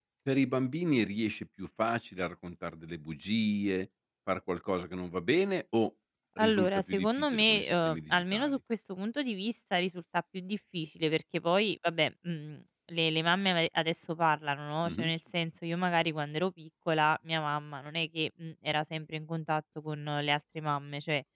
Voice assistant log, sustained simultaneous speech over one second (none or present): present